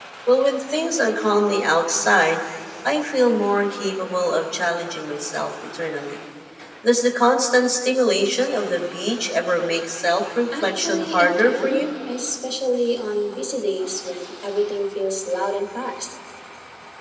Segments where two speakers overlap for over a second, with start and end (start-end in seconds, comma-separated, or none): 10.6-11.8